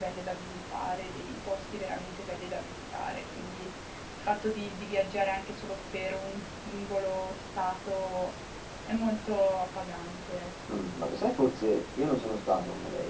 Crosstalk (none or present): none